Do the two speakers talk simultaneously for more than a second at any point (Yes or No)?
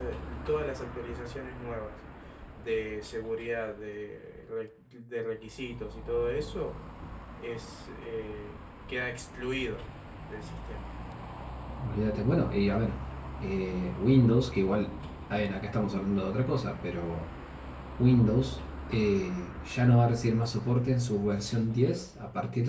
No